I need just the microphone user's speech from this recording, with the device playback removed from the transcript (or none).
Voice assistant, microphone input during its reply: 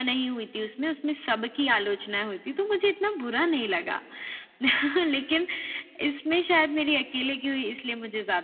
none